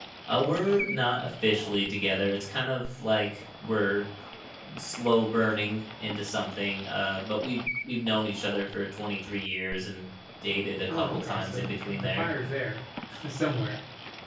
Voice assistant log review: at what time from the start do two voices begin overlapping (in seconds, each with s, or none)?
10.9 s